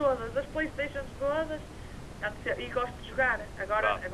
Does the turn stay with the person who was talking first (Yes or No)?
Yes